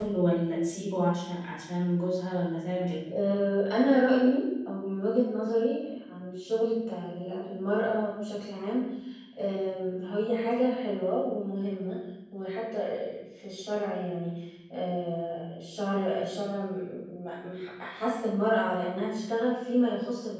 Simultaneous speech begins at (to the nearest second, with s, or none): none